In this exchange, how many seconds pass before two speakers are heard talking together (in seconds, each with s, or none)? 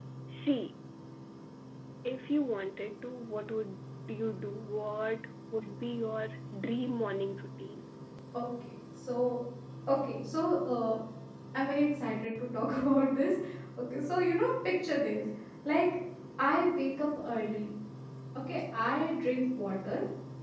none